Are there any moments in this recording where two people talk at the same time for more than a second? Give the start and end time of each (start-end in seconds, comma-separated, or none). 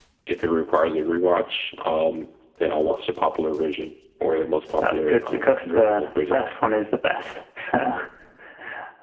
4.8-6.4